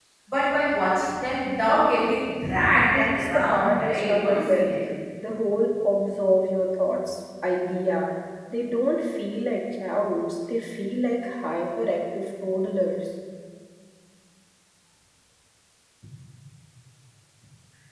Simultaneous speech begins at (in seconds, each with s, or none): 2.4 s